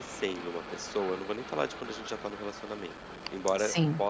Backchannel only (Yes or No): Yes